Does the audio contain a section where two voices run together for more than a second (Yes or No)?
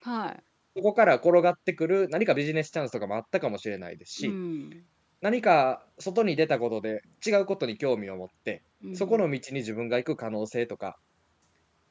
No